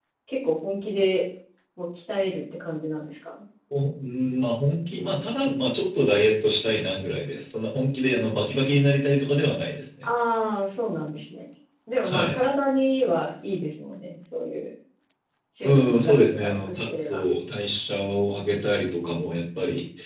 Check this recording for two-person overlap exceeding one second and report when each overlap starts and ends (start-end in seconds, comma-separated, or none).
15.6-17.2